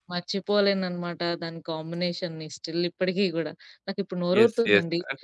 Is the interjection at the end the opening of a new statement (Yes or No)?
Yes